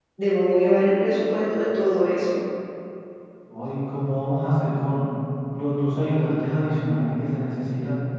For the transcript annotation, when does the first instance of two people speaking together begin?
none

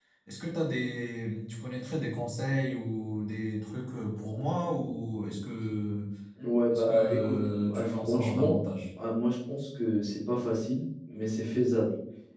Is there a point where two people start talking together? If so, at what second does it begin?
6.7 s

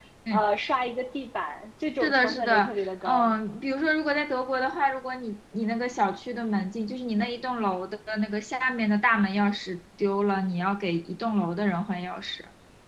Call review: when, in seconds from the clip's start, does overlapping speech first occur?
2.0 s

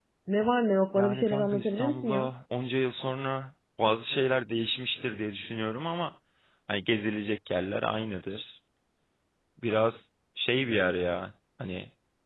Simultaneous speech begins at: 0.9 s

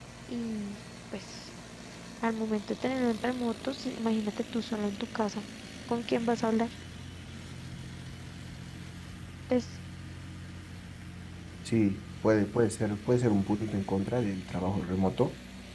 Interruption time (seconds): none

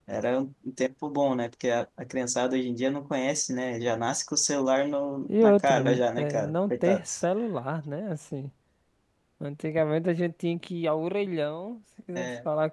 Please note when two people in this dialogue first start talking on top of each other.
5.3 s

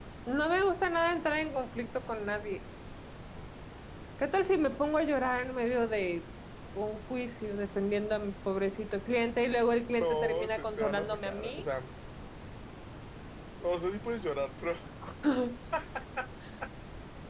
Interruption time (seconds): 10.0 s

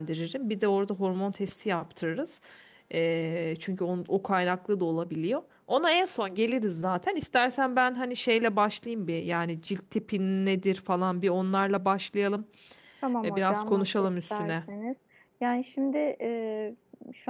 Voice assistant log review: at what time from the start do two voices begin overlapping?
13.2 s

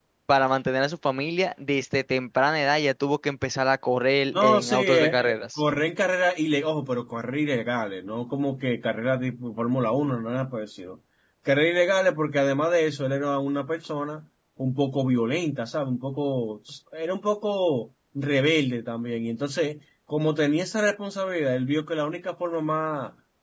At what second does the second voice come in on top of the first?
4.3 s

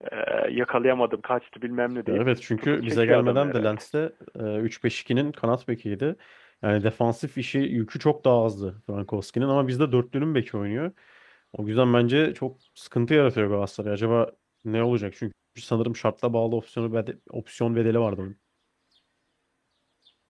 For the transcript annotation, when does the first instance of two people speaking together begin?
2.1 s

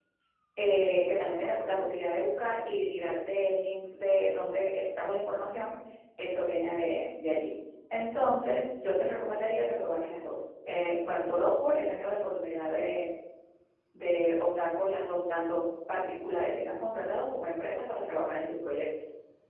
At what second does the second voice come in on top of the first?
none

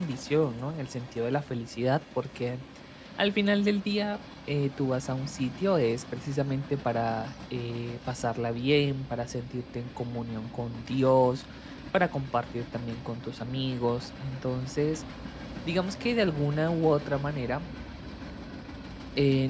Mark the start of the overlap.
none

